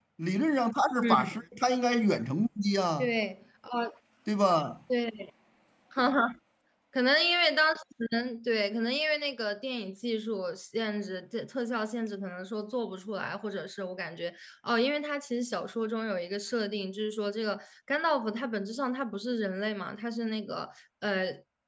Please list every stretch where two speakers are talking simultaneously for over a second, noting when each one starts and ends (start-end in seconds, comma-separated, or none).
none